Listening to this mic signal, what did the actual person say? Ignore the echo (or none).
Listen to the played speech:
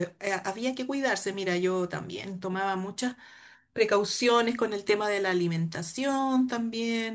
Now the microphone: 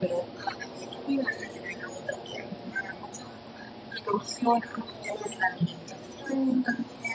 none